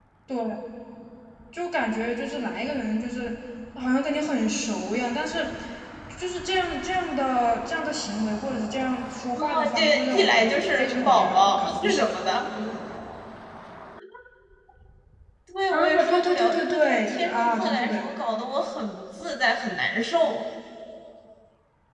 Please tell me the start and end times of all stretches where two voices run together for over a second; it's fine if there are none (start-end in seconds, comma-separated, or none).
9.4-12.5, 15.7-18.1